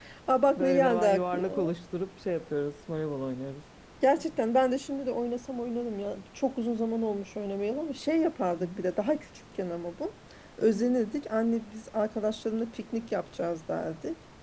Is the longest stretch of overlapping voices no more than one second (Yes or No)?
No